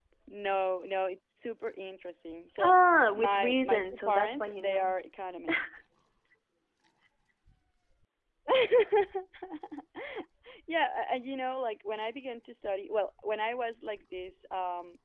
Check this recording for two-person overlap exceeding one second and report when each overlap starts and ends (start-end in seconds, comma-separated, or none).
3.1-4.9